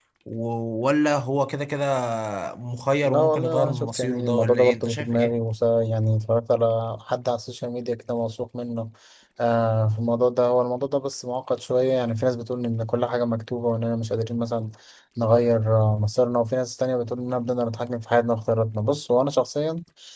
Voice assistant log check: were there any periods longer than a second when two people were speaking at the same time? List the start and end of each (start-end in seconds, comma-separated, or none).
3.0-5.3